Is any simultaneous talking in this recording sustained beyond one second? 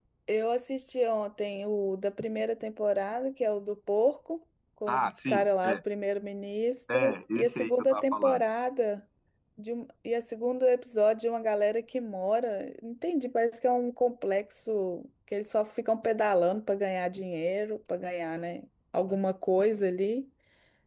Yes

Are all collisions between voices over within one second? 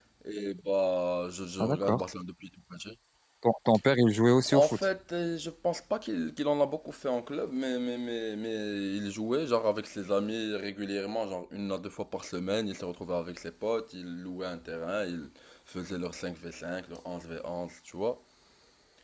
Yes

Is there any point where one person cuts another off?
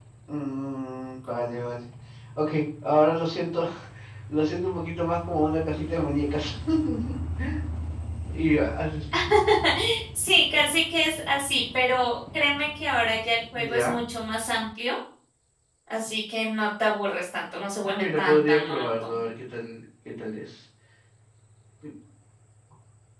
Yes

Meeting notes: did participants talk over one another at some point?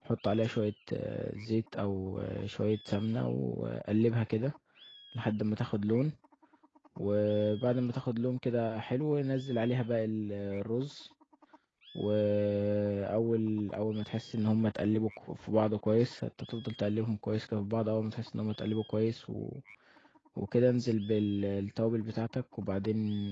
No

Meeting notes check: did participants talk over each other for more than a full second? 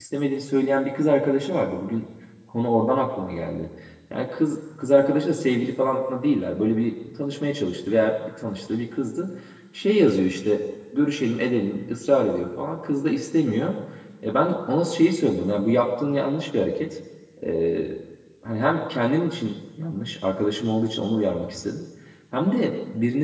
No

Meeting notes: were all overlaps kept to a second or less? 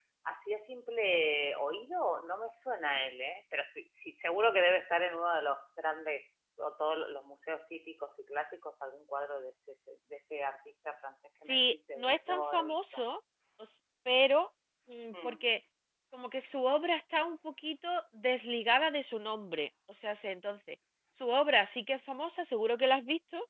No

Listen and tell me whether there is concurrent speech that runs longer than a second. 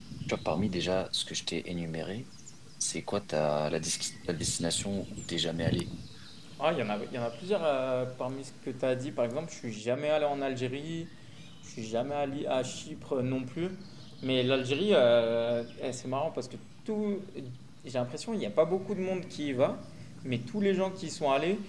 No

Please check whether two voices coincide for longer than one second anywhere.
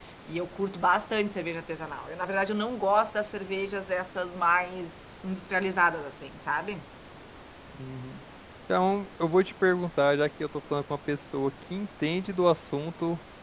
No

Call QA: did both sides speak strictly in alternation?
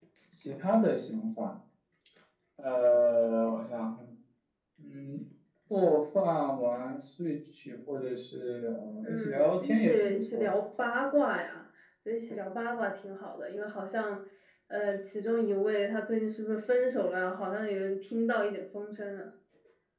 No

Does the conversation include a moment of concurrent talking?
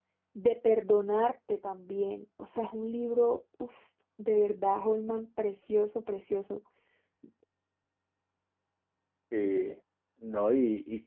No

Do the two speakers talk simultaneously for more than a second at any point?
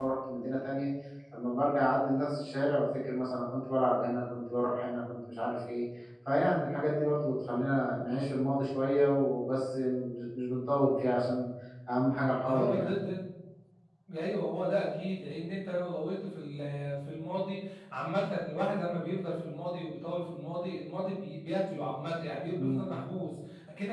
No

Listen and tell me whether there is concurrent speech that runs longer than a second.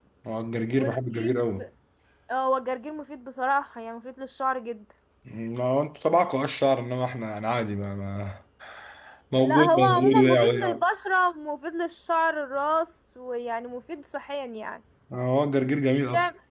Yes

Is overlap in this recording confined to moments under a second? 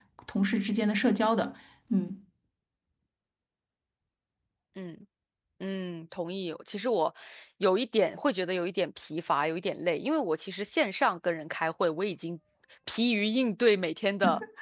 Yes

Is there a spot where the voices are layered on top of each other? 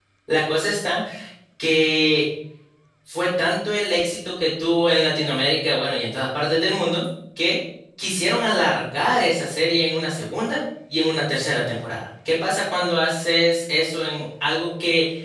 No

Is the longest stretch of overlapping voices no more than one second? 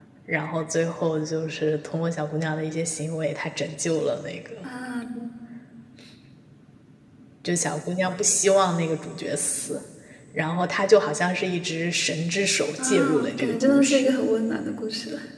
No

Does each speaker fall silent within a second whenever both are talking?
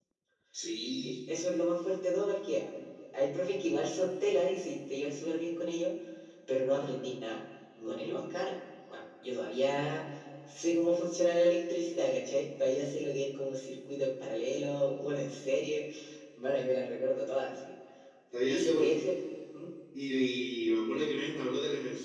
Yes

